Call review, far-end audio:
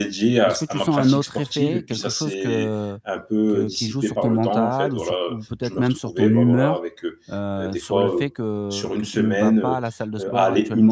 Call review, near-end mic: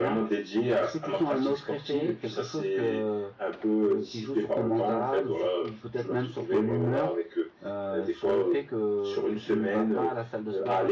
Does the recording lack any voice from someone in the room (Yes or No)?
Yes